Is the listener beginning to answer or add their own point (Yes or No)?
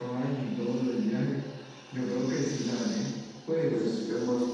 Yes